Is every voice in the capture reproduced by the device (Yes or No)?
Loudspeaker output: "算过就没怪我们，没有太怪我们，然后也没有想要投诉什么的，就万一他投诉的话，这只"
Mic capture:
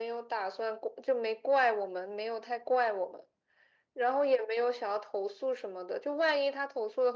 Yes